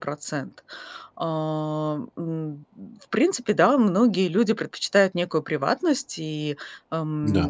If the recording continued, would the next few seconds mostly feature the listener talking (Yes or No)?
No